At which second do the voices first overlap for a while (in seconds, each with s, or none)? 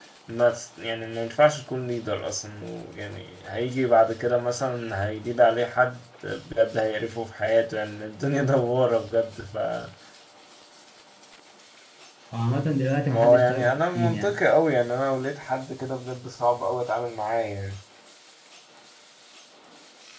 13.1 s